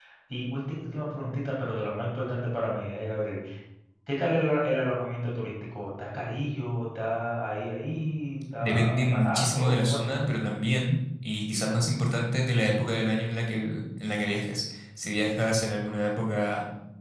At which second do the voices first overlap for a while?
9 s

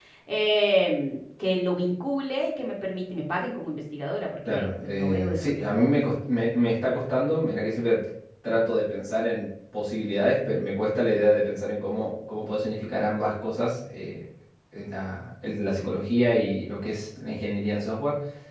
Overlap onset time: 4 s

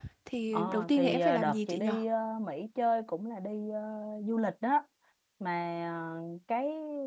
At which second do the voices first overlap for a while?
1 s

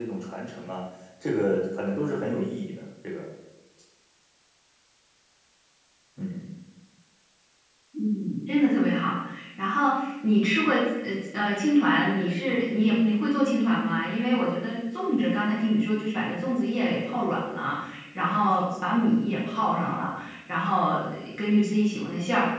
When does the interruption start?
none

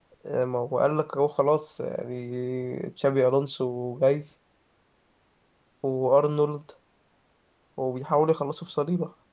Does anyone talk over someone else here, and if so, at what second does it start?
none

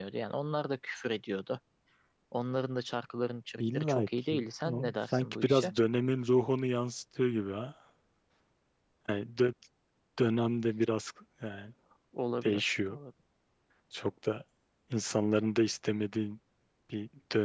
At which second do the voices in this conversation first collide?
4 s

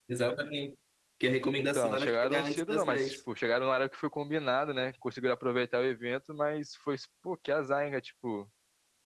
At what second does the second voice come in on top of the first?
2 s

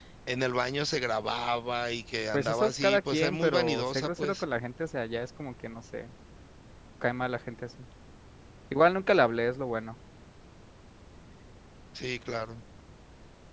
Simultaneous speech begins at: 2 s

